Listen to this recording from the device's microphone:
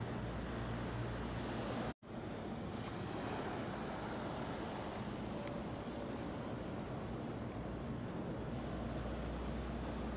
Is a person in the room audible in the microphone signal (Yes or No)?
No